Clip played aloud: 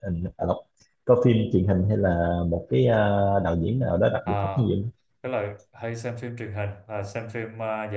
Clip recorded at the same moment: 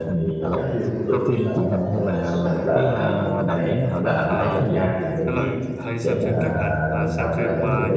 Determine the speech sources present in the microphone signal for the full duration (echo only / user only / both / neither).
both